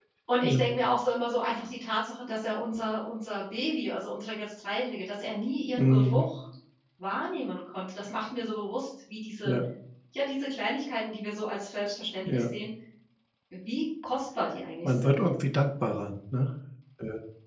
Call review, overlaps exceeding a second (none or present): none